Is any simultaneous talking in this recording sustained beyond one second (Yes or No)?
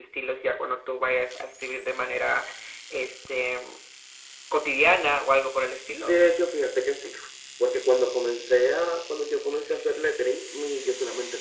No